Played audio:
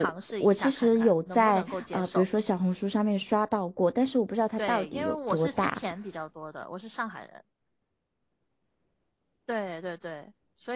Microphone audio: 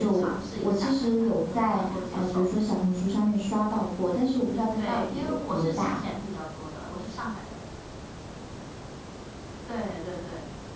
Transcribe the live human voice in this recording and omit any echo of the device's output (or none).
none